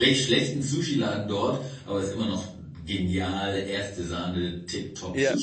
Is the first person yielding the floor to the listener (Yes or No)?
Yes